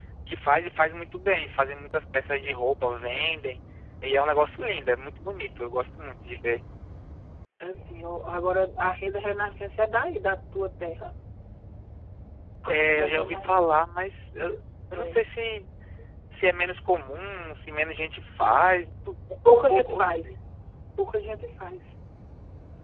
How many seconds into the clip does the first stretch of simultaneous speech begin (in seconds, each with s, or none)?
12.7 s